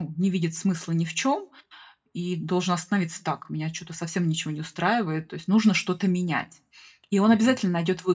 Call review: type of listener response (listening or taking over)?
listening